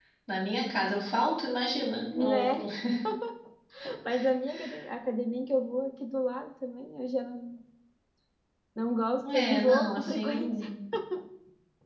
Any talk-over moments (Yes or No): Yes